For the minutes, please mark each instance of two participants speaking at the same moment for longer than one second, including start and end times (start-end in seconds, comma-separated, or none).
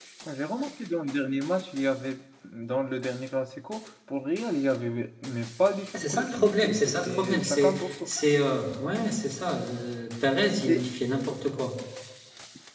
6.0-8.1